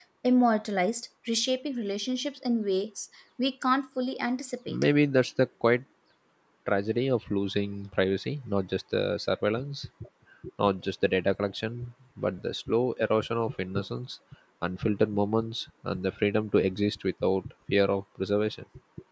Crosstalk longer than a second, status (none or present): none